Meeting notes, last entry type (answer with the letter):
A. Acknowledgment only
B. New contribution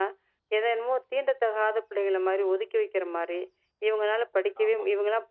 A